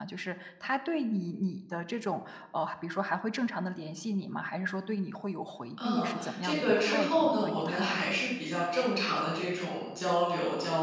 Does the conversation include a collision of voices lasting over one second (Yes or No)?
Yes